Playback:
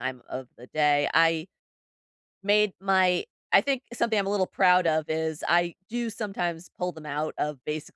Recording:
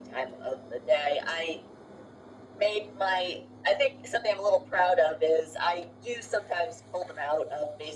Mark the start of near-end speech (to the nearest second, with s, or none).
none